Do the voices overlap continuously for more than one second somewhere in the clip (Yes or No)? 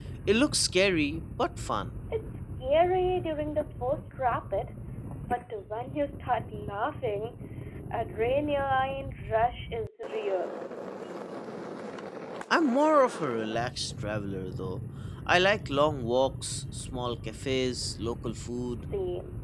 No